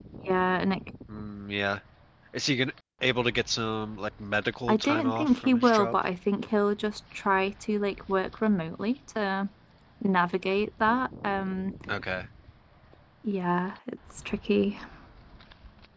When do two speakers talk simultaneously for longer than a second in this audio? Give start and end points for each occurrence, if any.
4.7-6.0

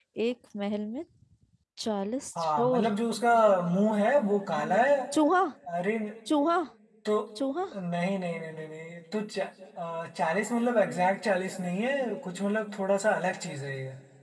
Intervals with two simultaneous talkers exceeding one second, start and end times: none

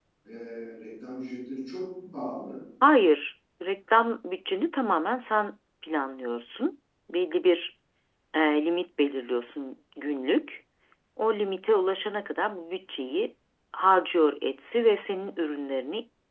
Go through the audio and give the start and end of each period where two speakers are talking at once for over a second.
none

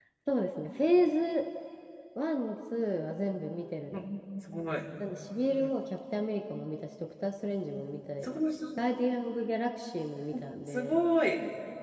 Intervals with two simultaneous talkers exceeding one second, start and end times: none

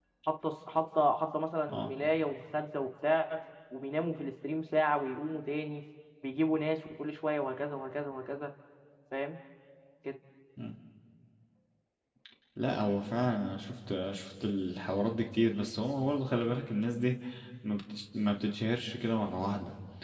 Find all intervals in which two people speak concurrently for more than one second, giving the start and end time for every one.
none

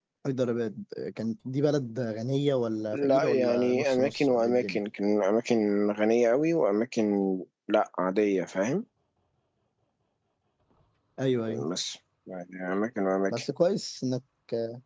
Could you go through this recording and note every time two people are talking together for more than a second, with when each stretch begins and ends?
2.9-4.8

